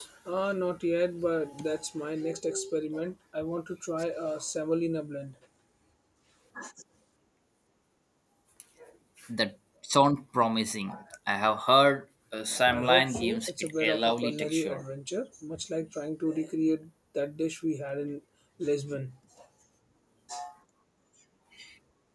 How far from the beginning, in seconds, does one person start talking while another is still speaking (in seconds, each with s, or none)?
12.7 s